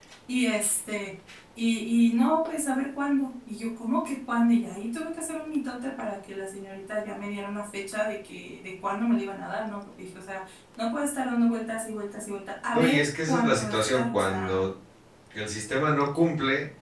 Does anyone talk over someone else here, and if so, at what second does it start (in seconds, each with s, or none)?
12.7 s